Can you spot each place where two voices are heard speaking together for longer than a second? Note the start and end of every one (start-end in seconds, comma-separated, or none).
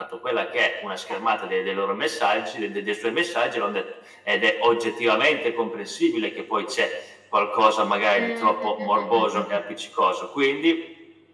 8.2-9.4